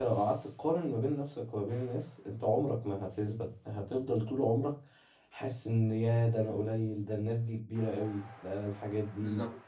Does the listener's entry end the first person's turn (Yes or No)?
Yes